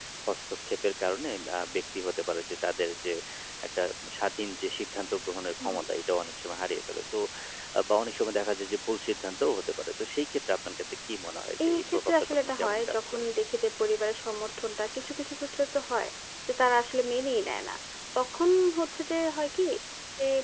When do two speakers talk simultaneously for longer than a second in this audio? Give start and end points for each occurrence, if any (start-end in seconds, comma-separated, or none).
11.7-13.2